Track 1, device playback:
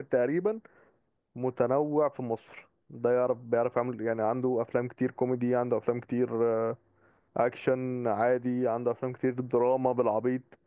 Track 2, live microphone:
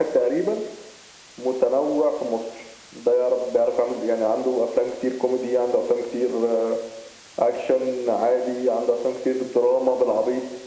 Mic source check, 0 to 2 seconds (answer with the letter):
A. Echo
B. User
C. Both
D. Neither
A